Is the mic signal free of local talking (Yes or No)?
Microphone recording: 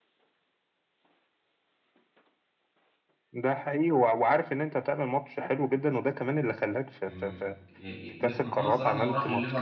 No